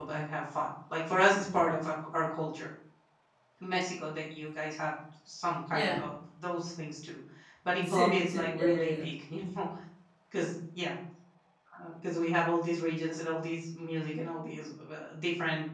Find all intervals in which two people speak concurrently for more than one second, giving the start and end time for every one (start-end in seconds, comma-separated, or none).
7.8-9.1